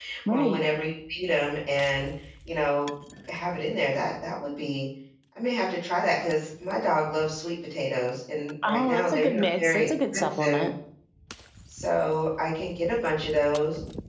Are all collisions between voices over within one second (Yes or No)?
No